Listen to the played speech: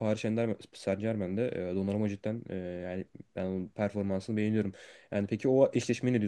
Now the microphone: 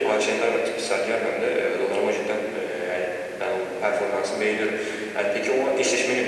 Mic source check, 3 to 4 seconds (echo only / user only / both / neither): echo only